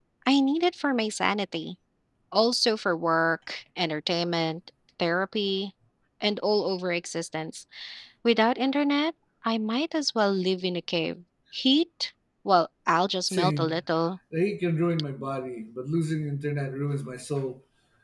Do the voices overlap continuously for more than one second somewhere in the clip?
No

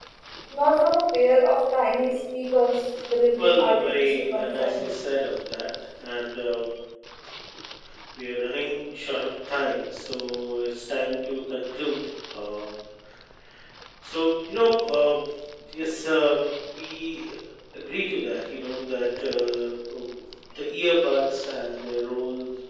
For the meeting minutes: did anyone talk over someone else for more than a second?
Yes, from 3.4 s

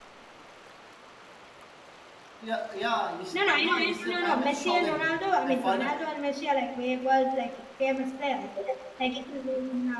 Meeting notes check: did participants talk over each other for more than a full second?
Yes, from 3.3 s

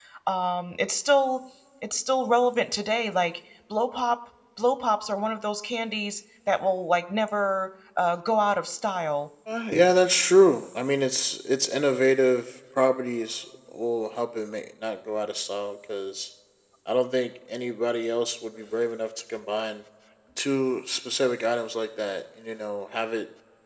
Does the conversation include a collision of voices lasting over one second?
No

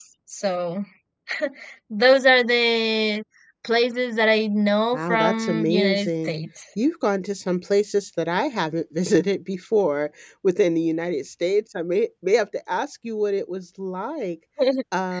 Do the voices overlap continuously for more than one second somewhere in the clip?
Yes, from 4.9 s

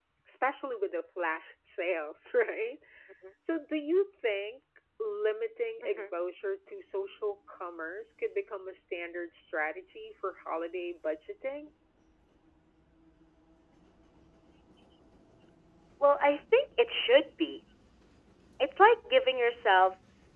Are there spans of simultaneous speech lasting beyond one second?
No

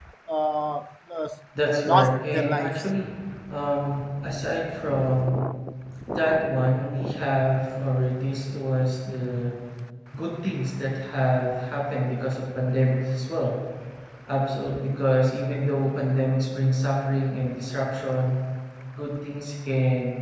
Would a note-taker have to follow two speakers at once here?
Yes, from 1.6 s

